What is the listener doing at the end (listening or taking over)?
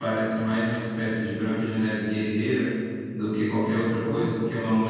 listening